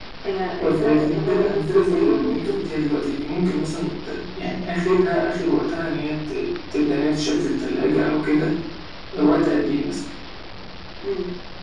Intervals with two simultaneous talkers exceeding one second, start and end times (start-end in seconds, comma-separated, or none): 0.6-2.6